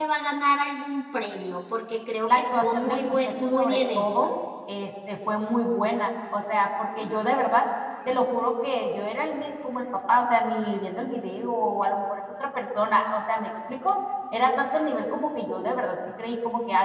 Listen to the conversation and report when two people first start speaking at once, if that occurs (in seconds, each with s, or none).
2.3 s